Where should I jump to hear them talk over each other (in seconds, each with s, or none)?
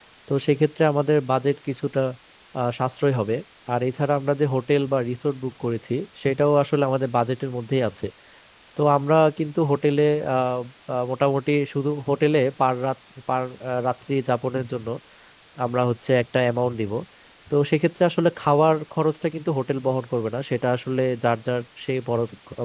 none